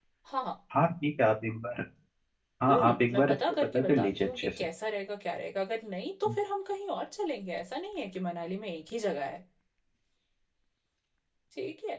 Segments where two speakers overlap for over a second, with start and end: 2.7-4.7

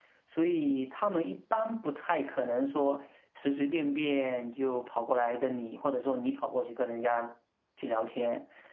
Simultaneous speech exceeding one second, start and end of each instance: none

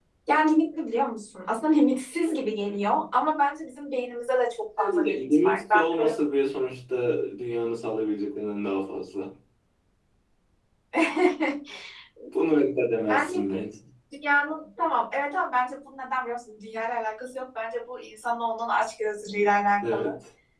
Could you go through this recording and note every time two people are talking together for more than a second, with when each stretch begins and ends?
4.8-6.1

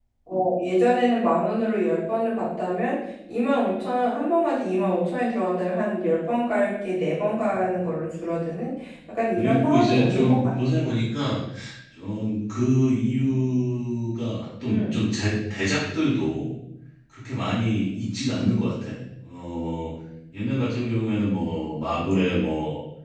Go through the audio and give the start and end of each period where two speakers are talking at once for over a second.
9.4-10.8

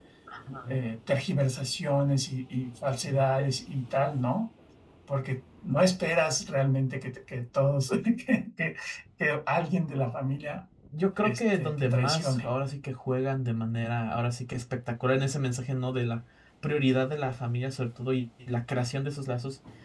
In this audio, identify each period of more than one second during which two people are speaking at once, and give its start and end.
11.2-12.5

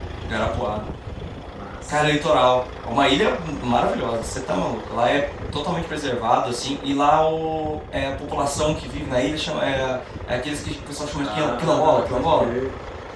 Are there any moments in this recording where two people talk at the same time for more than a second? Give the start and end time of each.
11.2-12.5

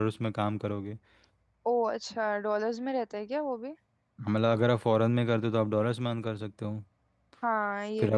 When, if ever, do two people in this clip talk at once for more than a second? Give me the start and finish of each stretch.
none

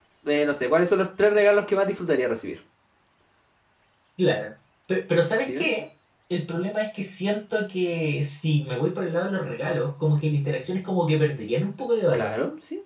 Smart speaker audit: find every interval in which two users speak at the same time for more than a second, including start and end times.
none

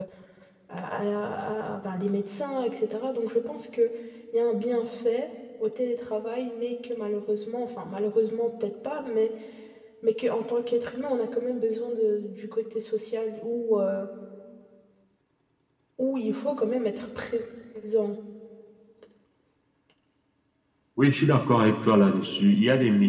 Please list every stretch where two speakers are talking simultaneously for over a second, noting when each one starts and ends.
none

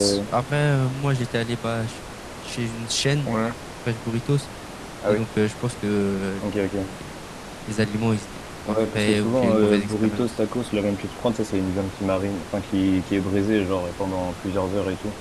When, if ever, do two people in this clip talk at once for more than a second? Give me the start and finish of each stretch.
8.7-10.3

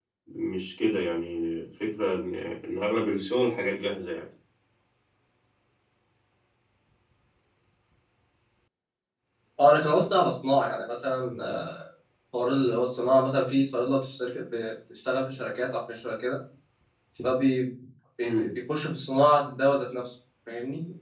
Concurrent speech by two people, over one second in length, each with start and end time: none

